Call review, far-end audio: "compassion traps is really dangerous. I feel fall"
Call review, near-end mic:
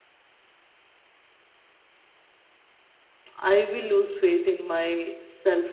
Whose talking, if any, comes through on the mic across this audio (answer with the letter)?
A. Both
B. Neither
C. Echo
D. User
D